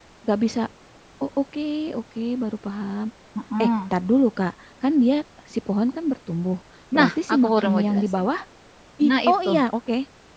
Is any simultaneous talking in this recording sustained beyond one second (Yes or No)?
Yes